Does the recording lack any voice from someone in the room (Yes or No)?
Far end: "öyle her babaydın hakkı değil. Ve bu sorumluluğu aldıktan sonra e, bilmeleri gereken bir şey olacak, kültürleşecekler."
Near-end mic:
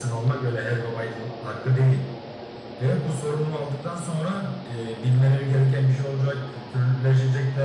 Yes